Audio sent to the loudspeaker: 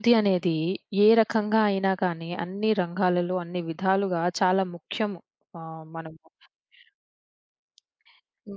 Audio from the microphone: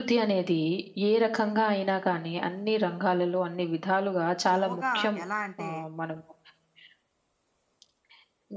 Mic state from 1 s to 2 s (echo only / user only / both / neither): echo only